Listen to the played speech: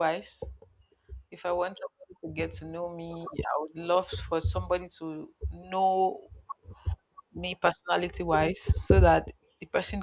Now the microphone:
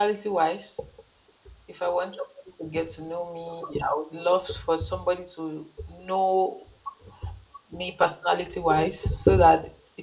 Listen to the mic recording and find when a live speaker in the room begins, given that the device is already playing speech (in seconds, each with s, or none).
none